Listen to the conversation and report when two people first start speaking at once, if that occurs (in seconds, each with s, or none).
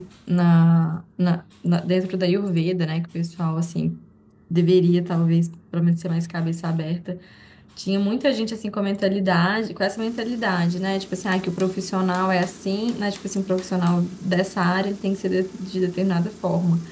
none